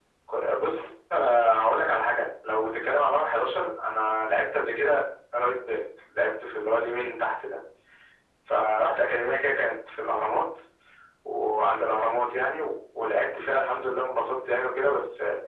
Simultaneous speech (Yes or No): No